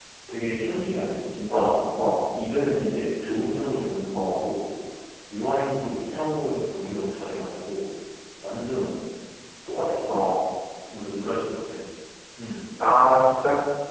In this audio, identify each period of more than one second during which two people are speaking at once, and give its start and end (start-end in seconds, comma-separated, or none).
none